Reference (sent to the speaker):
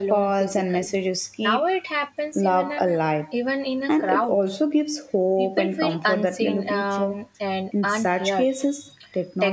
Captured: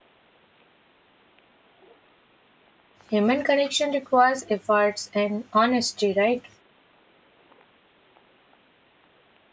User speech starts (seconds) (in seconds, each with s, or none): 3.1 s